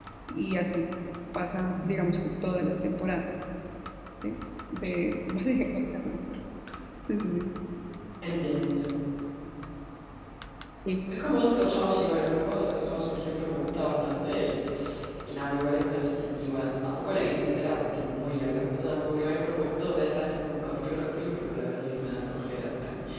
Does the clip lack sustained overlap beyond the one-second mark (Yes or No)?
Yes